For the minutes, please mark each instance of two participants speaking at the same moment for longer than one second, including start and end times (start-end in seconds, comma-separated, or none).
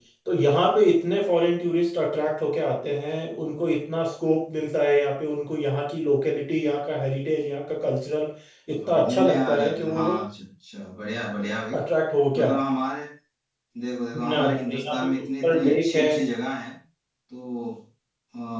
8.7-10.2, 14.2-16.1